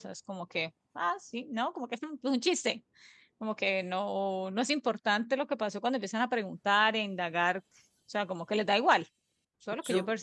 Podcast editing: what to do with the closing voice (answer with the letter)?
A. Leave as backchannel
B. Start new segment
B